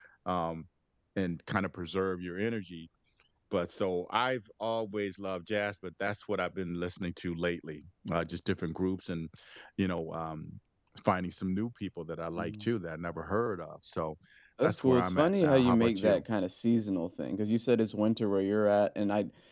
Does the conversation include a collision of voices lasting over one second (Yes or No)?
Yes